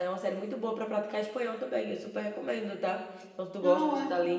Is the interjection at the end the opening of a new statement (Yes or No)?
No